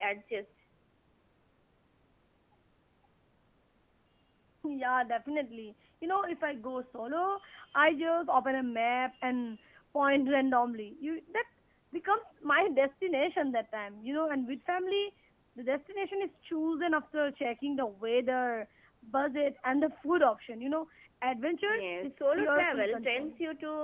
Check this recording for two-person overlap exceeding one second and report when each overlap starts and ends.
21.7-23.4

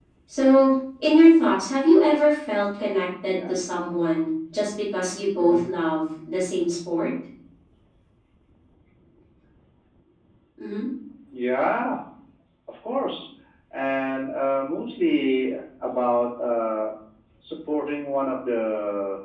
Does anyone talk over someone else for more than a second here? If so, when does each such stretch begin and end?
none

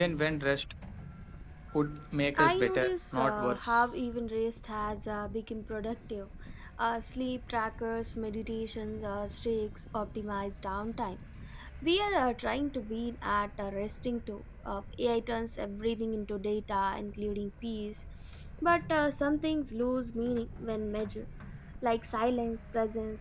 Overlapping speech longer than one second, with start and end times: 2.4-3.8

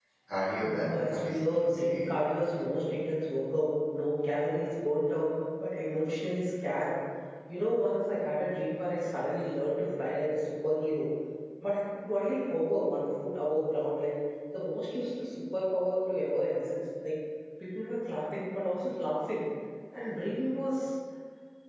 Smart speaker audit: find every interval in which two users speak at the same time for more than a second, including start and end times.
0.6-2.1

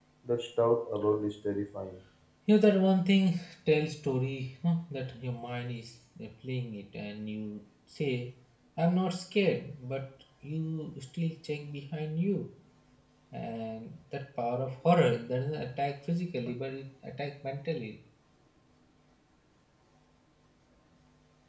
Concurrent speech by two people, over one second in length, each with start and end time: none

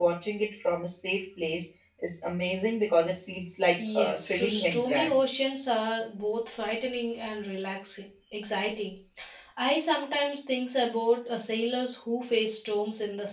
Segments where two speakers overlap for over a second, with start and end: 3.8-5.2

